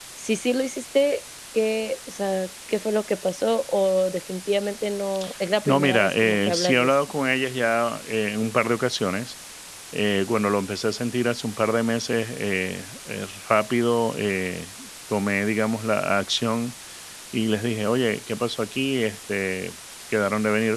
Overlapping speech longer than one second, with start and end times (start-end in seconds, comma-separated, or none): 5.7-7.0